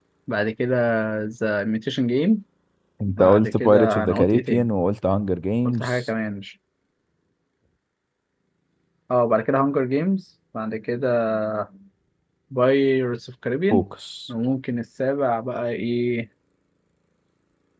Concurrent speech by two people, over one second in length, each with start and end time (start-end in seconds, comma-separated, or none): 3.0-4.7